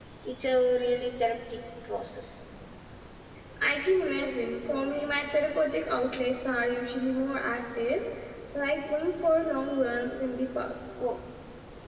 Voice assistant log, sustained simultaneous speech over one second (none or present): none